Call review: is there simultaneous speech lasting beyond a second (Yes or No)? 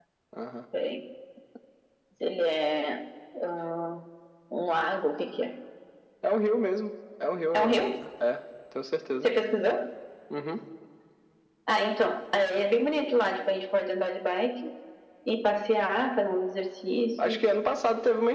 No